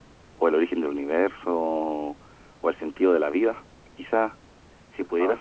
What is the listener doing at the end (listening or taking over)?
listening